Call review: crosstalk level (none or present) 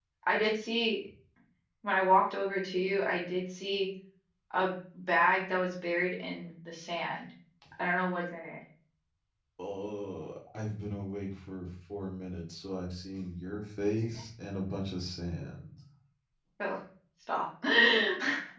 none